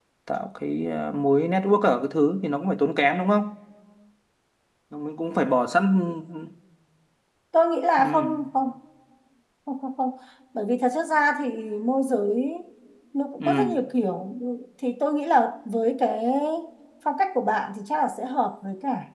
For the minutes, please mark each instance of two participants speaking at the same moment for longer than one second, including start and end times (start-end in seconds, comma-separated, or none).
none